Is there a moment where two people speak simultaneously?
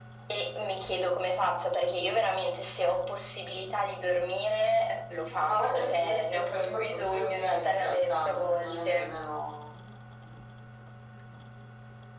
Yes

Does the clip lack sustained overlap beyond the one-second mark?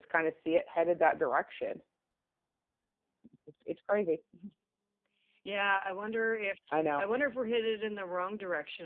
Yes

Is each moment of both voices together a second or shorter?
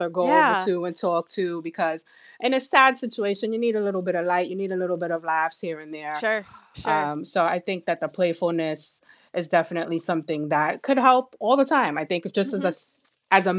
Yes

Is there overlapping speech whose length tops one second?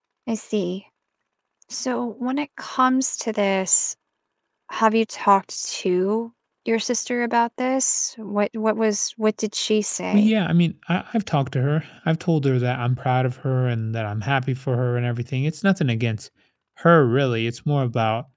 No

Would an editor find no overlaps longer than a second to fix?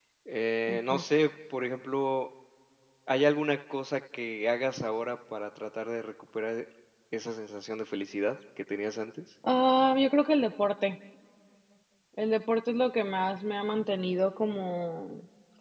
Yes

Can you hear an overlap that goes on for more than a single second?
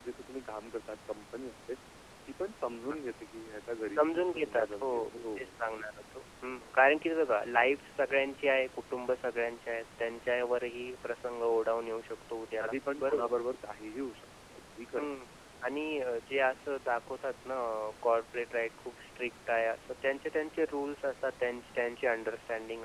Yes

